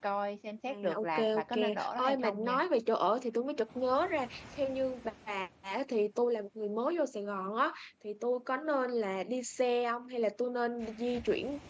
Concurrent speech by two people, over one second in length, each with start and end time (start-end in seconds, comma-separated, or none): 0.7-2.6